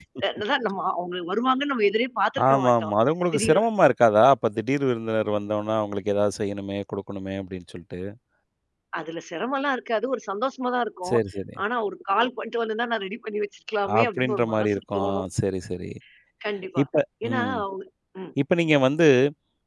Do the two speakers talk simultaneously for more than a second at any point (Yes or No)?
Yes